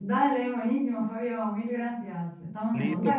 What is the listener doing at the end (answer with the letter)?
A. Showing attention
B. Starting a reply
B